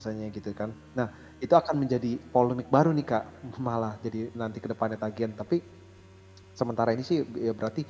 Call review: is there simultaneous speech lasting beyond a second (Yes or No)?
No